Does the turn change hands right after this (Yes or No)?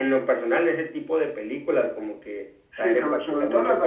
Yes